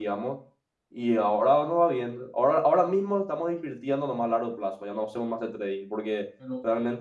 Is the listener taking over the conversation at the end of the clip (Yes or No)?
No